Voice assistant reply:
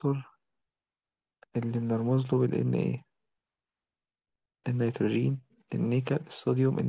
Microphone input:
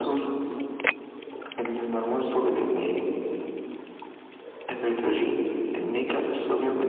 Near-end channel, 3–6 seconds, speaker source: echo only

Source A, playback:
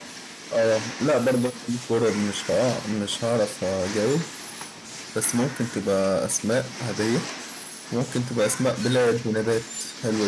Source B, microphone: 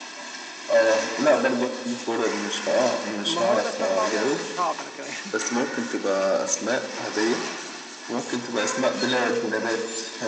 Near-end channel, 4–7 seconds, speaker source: both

